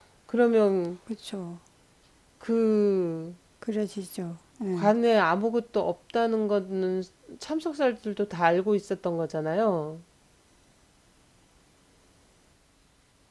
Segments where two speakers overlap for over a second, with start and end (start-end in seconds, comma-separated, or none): none